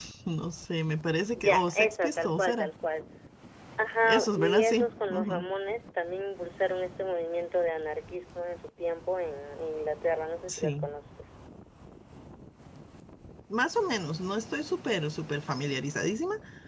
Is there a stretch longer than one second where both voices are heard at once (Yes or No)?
Yes